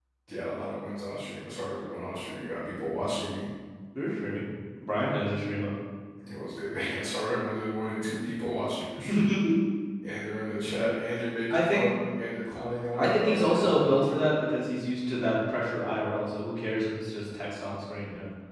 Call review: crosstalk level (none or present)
present